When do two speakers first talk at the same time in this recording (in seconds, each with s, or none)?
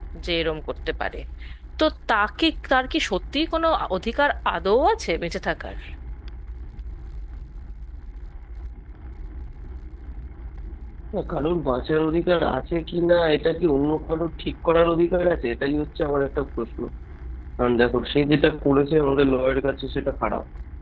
none